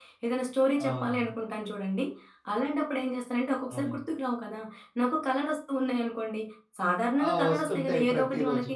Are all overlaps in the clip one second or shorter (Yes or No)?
No